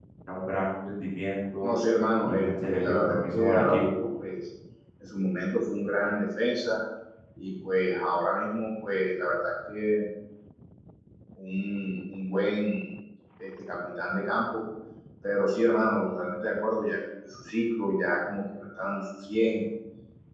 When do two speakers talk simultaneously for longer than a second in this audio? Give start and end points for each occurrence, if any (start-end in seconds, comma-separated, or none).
2.2-3.8